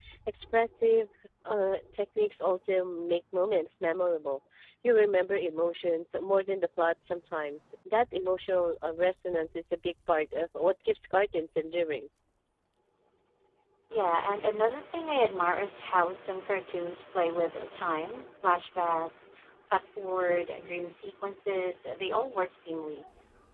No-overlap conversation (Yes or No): Yes